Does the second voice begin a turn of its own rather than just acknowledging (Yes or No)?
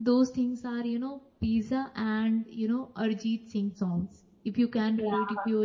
No